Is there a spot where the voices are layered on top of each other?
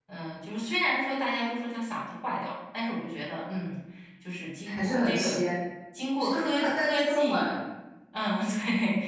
Yes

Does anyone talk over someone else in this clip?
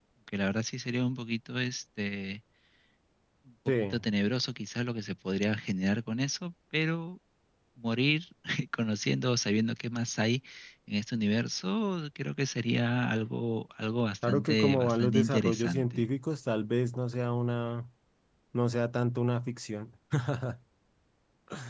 Yes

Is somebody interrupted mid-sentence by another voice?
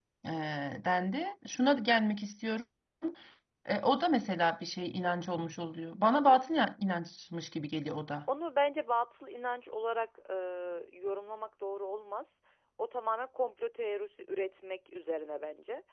No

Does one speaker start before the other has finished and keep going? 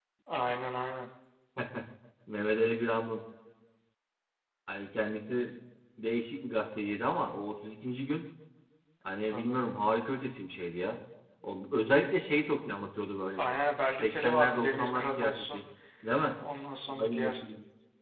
Yes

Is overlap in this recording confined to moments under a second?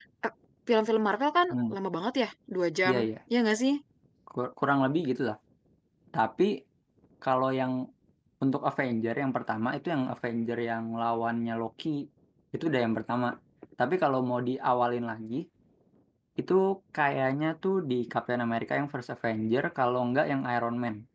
Yes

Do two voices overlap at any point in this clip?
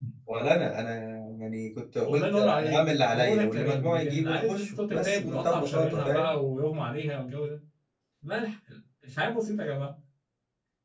Yes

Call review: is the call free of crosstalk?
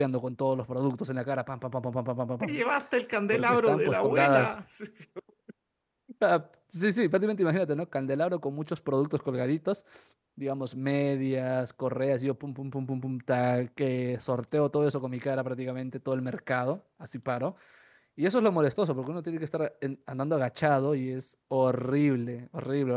No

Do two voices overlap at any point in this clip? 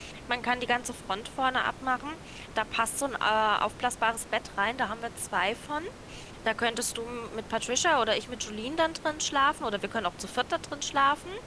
No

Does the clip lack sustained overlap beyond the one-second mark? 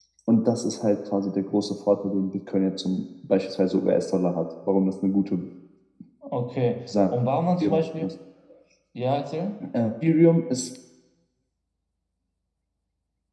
Yes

